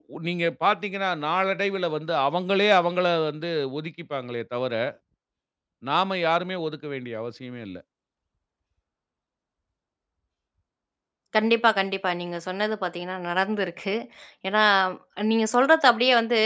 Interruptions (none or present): none